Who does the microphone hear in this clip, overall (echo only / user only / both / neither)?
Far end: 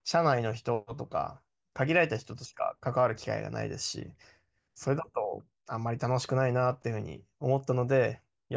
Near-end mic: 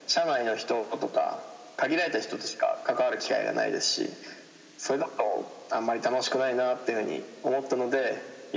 echo only